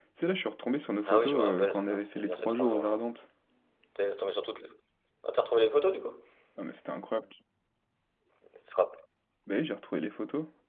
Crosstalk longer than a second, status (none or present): present